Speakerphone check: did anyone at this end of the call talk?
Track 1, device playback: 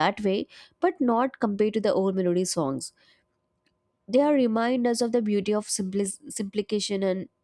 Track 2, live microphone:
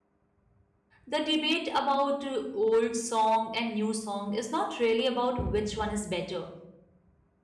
Yes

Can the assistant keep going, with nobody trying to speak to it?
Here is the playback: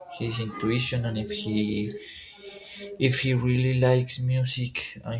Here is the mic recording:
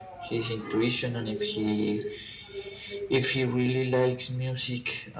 Yes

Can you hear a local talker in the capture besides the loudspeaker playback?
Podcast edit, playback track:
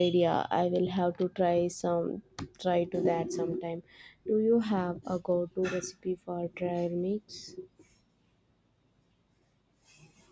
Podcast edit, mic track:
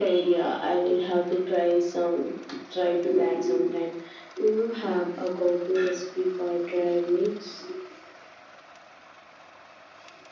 No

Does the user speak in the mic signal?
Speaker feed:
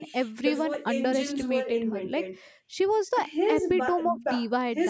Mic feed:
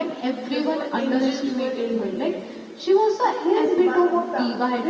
No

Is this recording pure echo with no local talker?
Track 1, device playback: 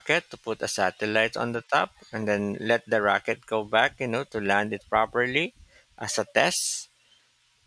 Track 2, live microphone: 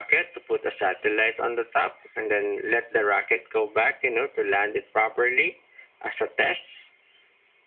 Yes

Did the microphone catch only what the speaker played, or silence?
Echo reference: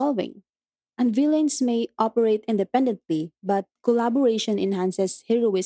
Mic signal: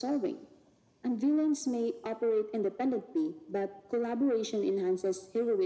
Yes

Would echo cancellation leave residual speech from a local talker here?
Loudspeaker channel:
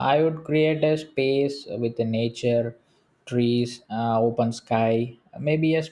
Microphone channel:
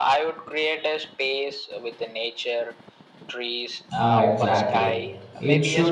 Yes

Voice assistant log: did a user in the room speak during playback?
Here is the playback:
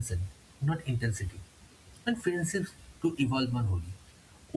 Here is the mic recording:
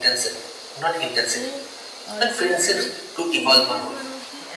Yes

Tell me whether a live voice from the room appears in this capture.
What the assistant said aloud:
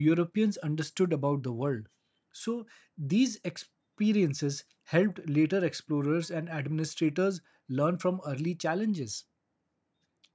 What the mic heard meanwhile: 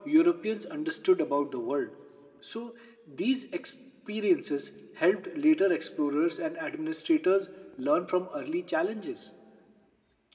No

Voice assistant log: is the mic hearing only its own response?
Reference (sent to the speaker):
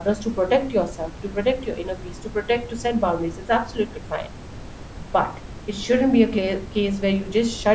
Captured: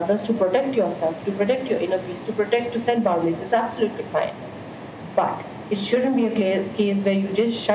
Yes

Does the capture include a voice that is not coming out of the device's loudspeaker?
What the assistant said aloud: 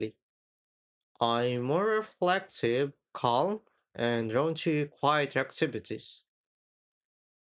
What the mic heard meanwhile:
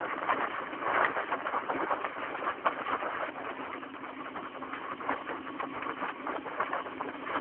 No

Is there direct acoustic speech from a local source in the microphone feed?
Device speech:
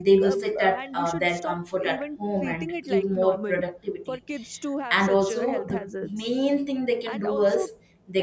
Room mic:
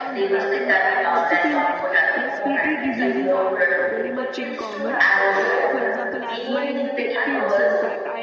Yes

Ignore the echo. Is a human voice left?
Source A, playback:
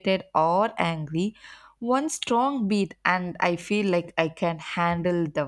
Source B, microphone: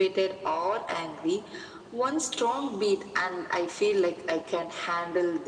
No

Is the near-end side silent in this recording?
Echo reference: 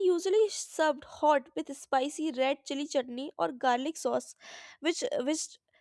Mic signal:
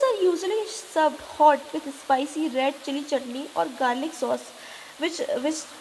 Yes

